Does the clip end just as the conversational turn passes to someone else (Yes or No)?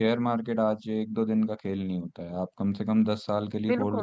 Yes